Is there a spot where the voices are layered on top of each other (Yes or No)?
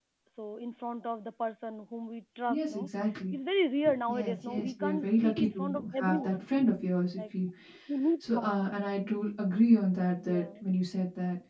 Yes